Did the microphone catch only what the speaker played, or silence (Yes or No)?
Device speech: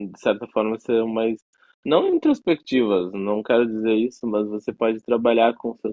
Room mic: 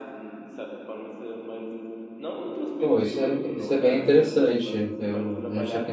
No